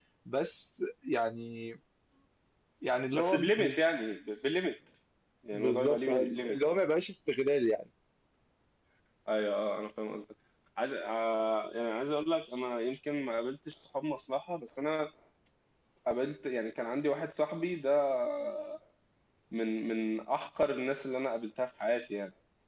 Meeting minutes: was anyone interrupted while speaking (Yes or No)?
Yes